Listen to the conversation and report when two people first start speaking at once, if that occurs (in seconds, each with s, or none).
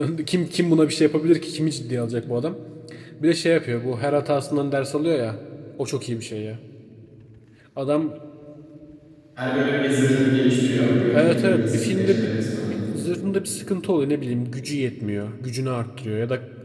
11.1 s